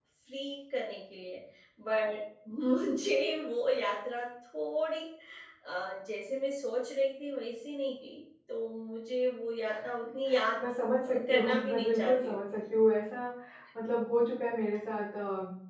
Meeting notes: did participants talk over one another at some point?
Yes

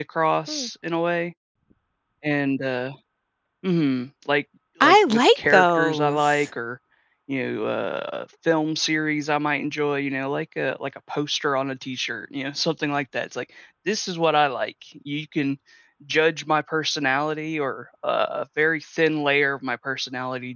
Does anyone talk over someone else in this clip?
Yes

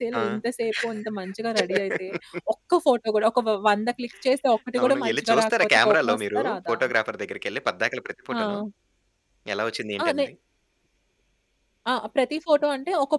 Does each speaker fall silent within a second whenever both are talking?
No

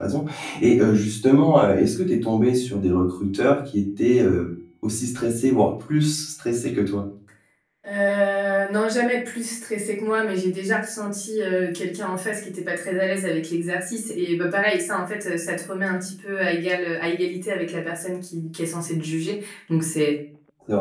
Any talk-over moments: No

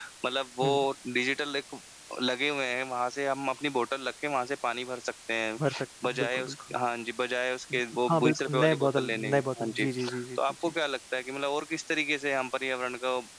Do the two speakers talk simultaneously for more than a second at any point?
Yes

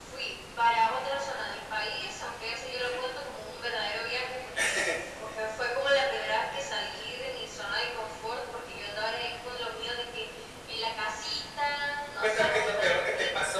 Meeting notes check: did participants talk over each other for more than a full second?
Yes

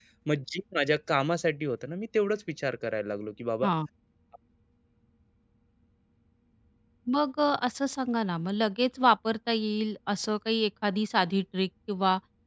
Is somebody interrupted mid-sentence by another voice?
No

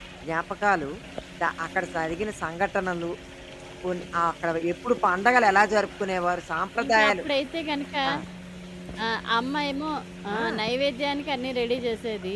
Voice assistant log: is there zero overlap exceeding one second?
Yes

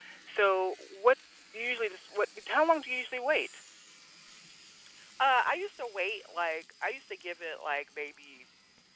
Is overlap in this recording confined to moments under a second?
Yes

